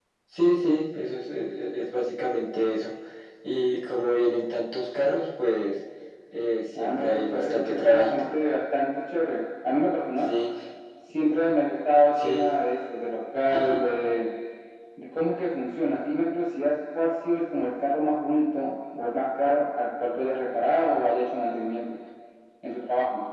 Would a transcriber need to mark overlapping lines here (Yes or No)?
Yes